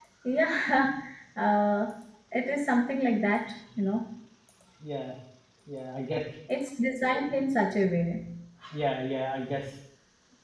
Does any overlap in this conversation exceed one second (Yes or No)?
No